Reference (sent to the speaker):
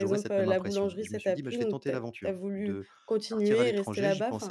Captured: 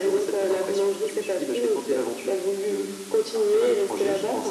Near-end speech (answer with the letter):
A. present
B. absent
B